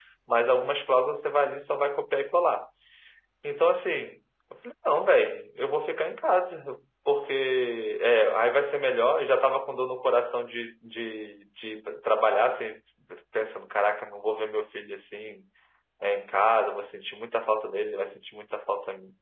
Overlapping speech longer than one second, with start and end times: none

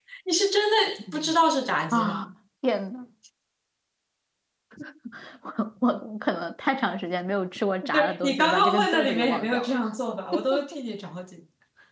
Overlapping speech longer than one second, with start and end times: 7.9-9.8

